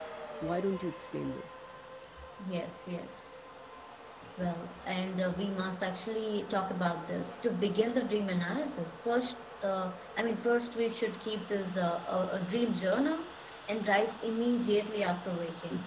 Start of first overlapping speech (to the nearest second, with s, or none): none